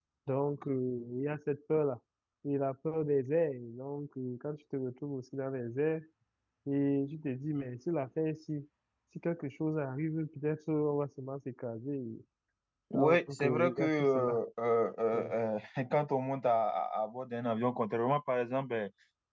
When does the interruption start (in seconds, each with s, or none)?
12.9 s